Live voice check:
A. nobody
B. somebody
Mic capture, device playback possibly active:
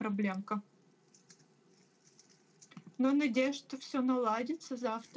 B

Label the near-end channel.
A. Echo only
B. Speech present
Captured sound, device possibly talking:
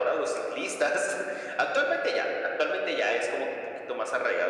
A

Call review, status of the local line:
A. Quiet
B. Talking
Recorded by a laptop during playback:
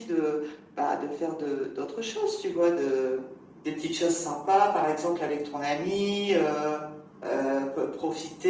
A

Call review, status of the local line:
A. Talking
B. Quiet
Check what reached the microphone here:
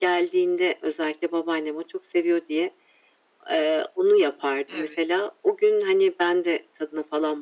A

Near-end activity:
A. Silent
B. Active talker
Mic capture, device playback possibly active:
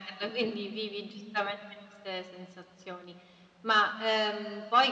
A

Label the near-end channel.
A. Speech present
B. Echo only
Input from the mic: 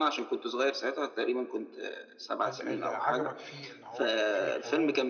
A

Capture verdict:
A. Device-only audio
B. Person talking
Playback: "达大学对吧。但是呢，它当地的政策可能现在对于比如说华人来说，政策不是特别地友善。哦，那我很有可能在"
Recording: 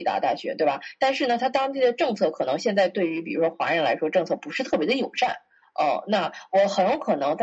A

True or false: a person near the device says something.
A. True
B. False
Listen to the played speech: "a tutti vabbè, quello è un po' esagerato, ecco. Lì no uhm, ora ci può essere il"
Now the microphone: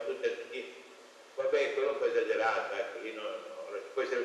B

